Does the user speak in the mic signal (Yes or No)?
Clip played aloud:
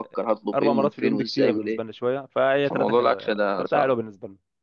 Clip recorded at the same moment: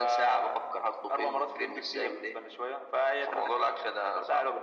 No